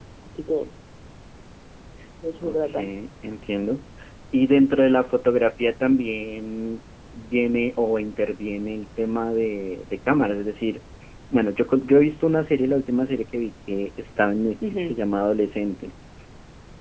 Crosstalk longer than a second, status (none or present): none